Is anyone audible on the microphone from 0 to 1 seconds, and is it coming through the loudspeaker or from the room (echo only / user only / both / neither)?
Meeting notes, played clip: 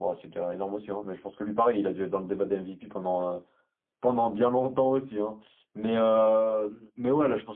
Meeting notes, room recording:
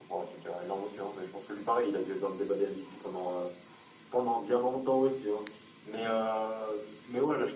echo only